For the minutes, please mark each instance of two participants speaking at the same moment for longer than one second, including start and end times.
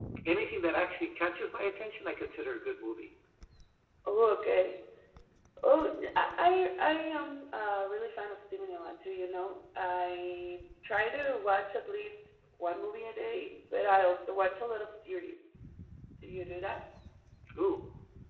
none

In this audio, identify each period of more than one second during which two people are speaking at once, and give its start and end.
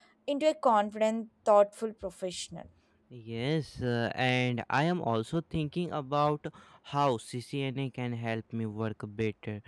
none

